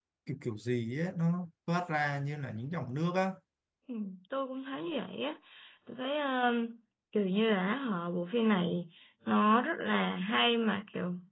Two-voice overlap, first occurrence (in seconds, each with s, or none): none